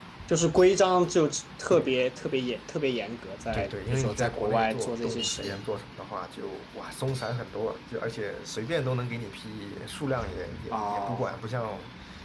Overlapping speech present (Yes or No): Yes